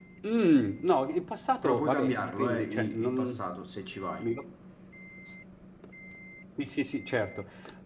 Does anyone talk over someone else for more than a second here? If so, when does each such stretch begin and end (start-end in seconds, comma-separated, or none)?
1.6-3.4